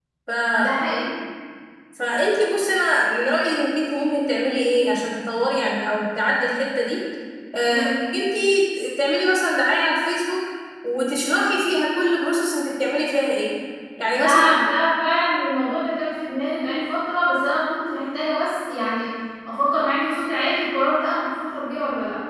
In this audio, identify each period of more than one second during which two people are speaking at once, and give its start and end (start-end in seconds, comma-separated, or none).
none